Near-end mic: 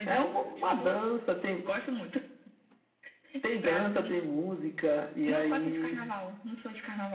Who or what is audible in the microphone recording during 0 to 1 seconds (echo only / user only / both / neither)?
echo only